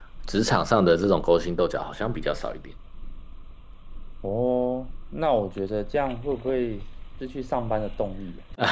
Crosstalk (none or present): none